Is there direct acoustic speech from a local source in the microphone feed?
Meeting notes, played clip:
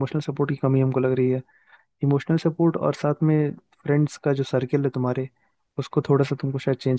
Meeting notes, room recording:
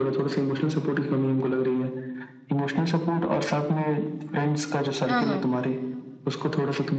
Yes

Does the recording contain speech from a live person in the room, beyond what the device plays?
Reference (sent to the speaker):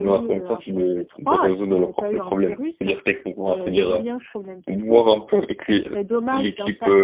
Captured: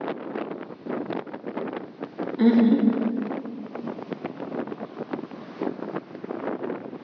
Yes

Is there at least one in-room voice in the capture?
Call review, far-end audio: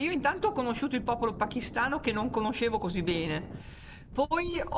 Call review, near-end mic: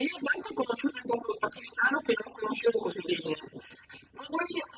No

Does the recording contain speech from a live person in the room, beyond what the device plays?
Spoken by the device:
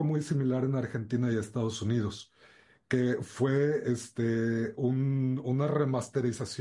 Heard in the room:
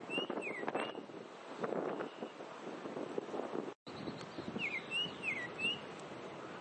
No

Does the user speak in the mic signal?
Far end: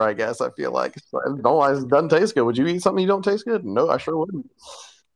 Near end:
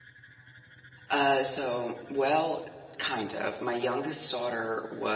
Yes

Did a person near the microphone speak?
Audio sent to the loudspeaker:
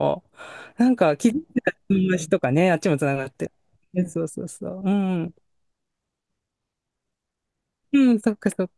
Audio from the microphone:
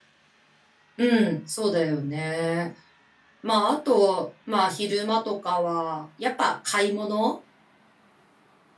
Yes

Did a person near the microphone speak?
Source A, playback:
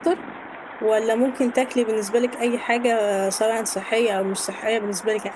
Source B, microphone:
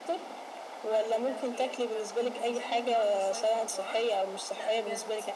Yes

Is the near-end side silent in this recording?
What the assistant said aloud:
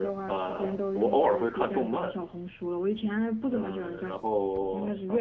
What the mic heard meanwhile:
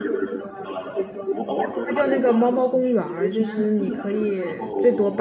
No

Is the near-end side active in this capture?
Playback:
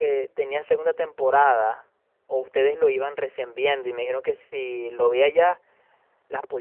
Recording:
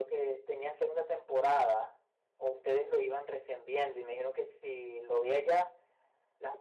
No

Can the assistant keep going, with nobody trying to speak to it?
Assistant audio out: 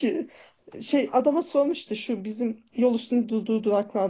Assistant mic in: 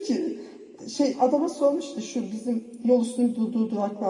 Yes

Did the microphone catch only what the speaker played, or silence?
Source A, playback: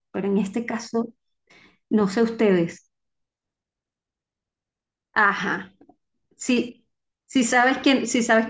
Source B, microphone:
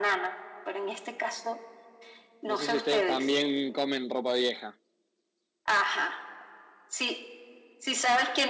No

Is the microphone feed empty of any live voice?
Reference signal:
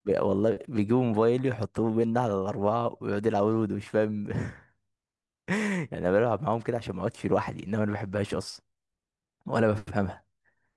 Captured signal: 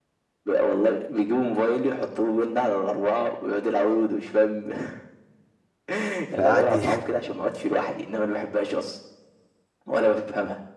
No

